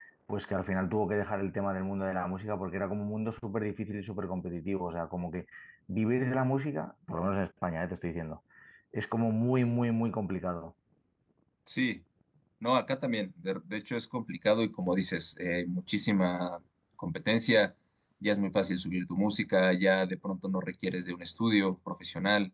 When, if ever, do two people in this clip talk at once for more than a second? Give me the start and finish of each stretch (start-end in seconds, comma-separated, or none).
none